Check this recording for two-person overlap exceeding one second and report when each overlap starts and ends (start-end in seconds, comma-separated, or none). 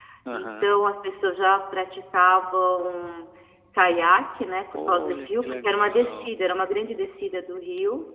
4.7-6.3